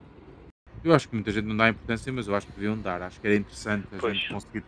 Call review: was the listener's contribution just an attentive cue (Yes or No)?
Yes